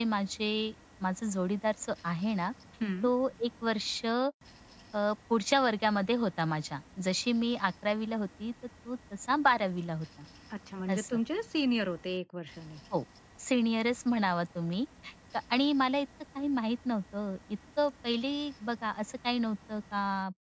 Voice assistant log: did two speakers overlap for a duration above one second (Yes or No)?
No